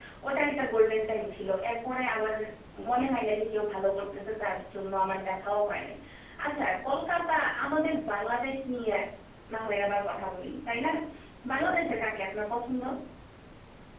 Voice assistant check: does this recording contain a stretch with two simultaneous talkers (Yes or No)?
No